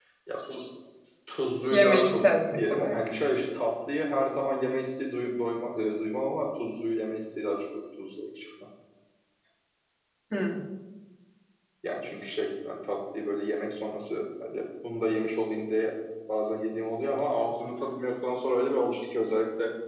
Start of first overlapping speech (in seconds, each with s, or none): 1.7 s